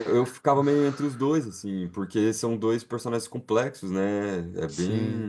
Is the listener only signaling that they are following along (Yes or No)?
Yes